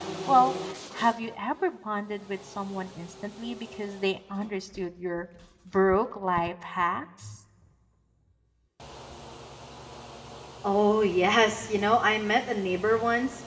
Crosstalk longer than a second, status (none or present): none